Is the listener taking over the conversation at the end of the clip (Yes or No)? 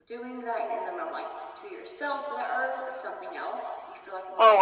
Yes